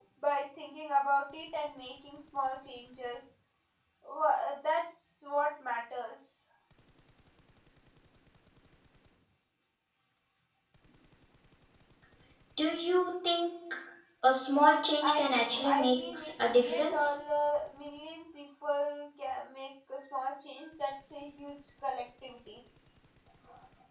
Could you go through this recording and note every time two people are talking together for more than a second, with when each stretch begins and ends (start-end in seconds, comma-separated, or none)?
15.0-17.1